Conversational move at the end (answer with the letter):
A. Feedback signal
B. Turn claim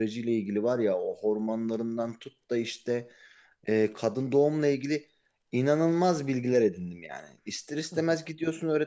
A